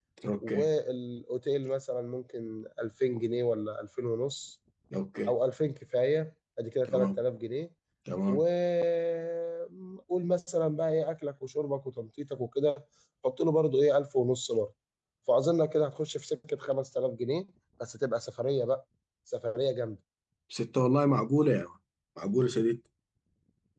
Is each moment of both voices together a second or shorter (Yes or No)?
Yes